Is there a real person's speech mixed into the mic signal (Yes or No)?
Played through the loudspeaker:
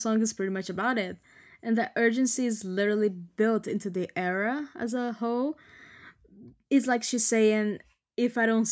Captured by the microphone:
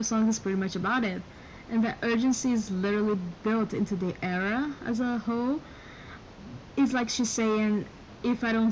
No